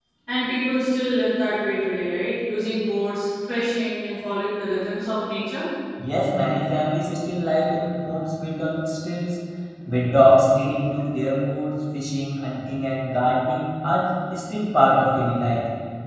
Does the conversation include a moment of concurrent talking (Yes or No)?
No